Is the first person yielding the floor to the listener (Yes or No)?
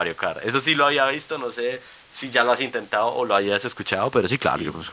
Yes